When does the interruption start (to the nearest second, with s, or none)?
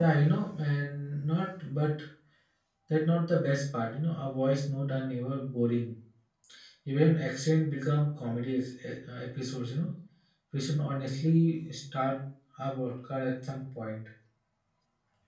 none